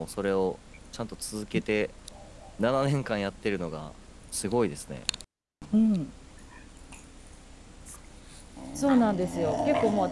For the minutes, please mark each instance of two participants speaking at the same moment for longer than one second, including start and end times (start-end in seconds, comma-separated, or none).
none